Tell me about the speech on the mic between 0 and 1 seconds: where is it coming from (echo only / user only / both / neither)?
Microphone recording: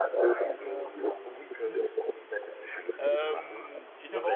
both